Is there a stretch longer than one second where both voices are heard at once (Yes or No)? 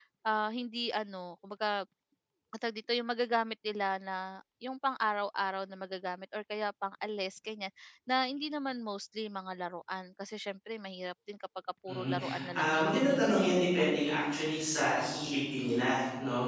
Yes